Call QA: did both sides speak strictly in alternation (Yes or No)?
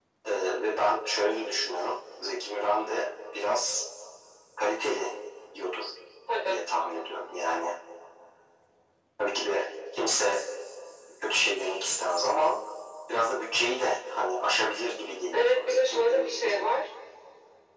No